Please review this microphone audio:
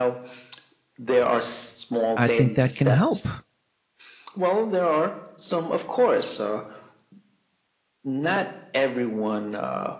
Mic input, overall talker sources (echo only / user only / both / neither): both